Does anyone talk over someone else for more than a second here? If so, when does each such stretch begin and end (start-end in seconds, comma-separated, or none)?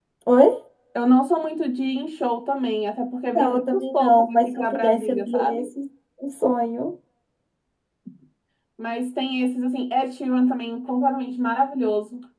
3.4-5.7